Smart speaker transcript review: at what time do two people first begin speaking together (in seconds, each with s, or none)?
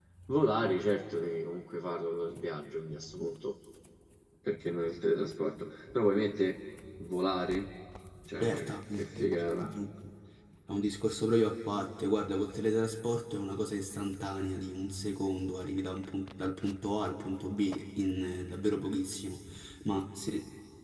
8.4 s